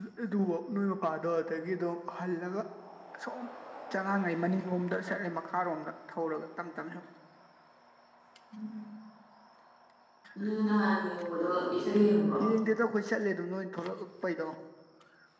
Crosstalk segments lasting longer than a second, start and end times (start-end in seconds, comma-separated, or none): none